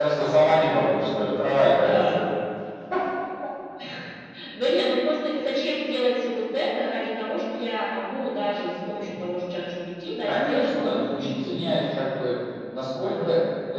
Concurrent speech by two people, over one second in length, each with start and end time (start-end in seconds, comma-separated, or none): 10.3-12.0